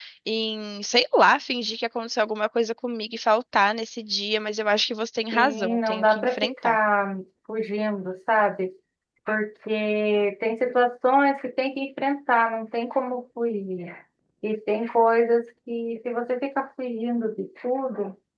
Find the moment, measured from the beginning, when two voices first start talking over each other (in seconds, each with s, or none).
5.3 s